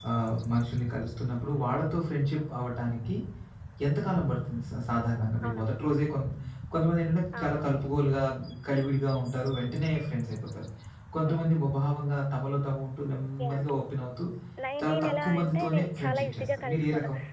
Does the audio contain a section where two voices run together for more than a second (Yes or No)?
Yes